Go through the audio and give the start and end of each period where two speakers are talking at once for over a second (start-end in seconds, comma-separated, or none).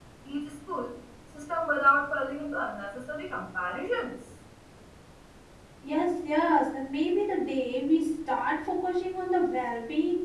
none